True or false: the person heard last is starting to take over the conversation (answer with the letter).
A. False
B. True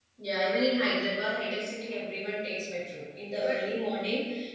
A